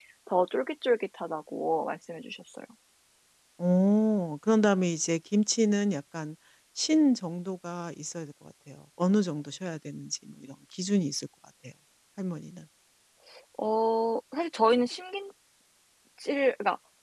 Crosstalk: none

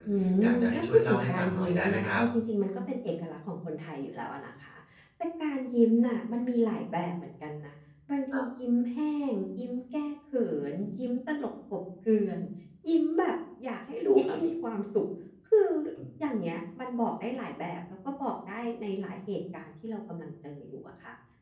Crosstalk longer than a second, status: present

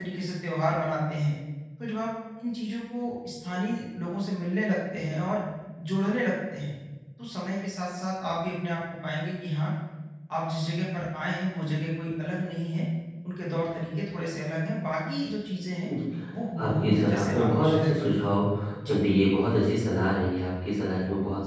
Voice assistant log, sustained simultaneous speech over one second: present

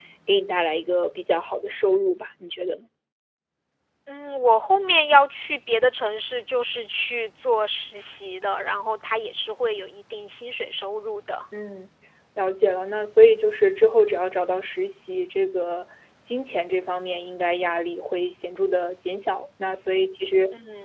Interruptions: none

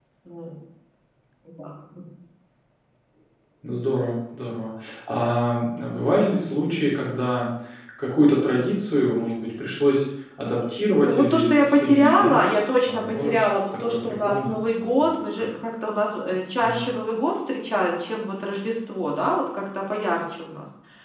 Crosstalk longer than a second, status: present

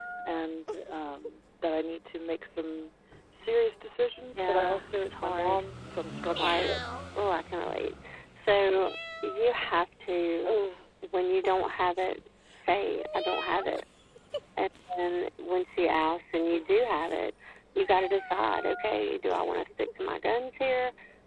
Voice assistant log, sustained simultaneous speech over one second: present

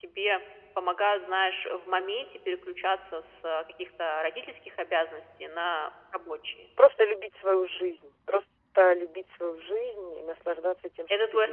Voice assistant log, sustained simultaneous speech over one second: none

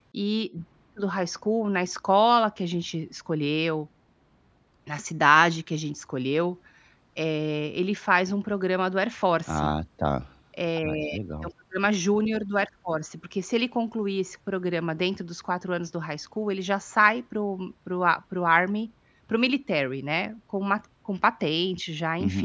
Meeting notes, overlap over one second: none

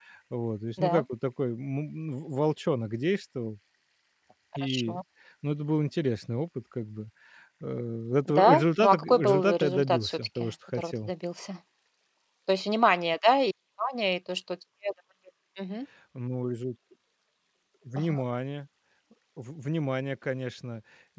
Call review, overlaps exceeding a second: present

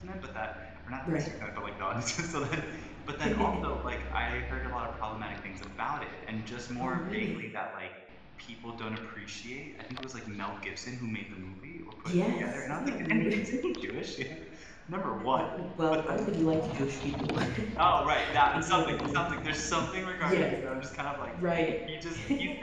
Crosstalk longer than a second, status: present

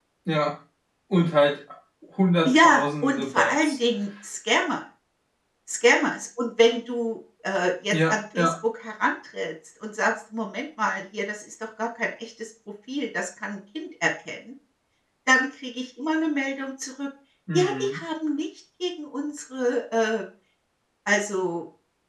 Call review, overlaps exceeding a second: present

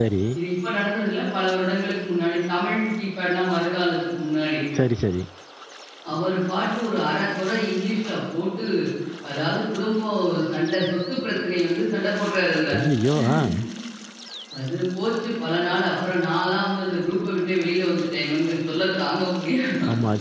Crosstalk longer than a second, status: none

